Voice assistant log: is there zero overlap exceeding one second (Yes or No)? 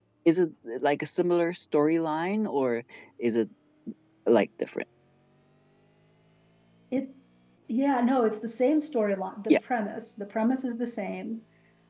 Yes